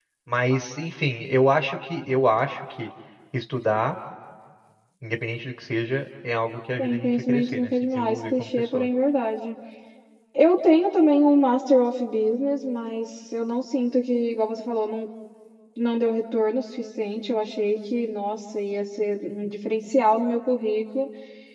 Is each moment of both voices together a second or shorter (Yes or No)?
No